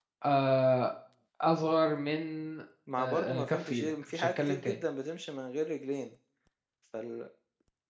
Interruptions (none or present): present